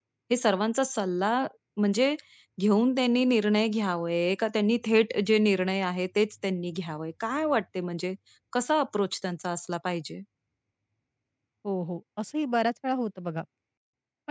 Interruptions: none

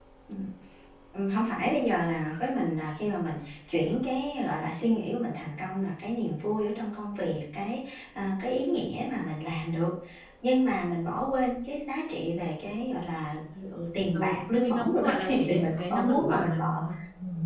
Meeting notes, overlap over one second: present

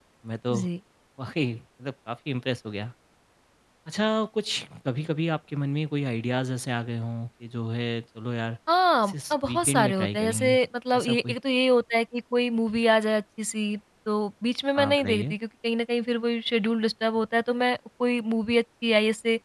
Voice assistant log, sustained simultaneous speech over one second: present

